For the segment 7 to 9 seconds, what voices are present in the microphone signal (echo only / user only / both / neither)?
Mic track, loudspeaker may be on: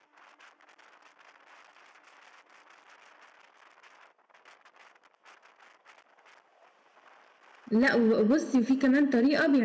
user only